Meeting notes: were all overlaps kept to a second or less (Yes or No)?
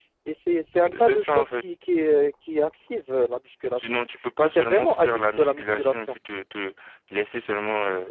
No